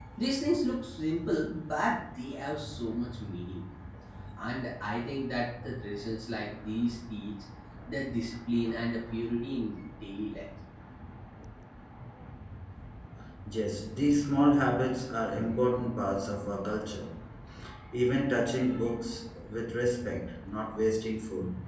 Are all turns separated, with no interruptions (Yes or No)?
Yes